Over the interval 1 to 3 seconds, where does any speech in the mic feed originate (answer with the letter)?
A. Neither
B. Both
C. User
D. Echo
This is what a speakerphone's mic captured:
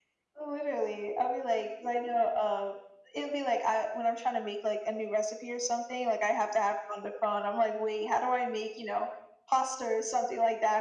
D